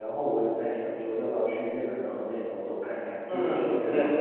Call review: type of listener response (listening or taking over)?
taking over